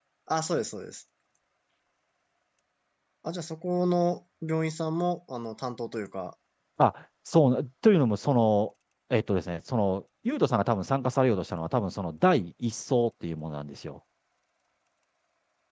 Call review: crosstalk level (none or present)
none